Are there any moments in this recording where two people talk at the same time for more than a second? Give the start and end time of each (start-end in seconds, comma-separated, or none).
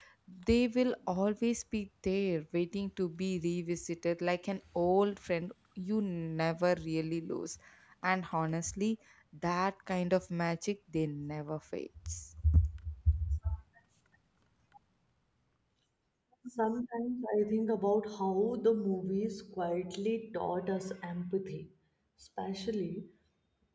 none